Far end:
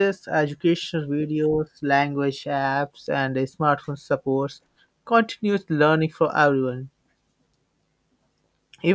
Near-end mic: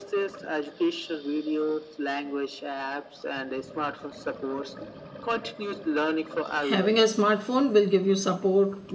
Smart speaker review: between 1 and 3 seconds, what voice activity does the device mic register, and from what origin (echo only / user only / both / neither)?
echo only